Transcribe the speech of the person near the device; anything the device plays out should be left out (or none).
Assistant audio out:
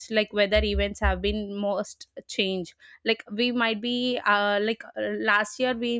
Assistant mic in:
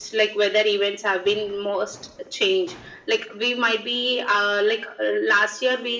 none